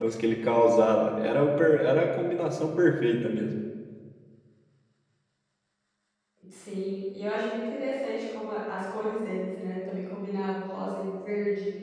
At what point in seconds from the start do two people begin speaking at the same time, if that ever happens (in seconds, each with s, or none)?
none